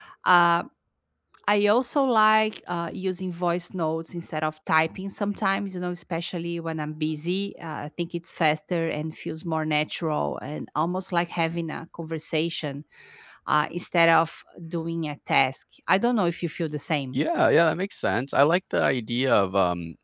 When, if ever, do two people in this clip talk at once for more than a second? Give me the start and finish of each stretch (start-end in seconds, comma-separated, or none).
none